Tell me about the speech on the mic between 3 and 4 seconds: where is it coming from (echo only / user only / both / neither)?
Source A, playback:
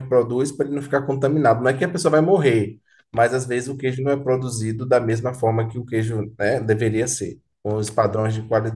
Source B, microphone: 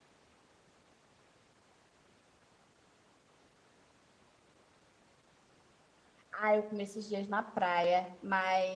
neither